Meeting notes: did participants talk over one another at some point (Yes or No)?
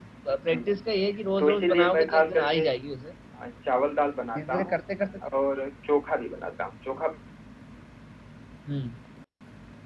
Yes